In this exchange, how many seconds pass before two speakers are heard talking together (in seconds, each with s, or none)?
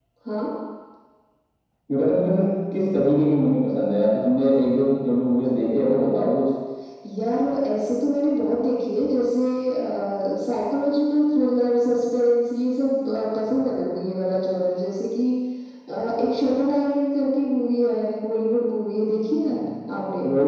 none